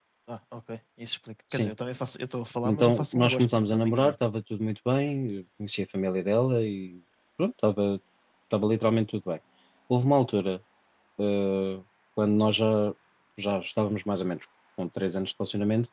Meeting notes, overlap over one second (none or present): present